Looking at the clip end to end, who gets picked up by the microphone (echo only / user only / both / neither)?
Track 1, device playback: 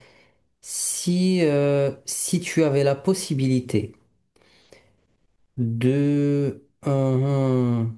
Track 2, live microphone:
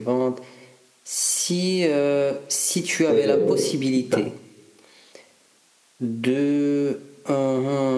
both